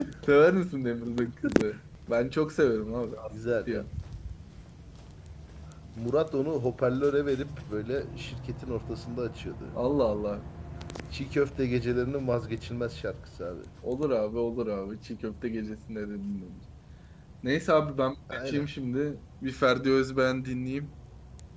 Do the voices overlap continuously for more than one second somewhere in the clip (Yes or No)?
No